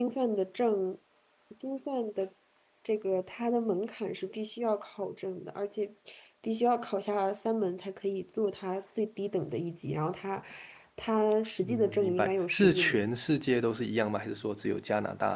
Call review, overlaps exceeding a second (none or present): present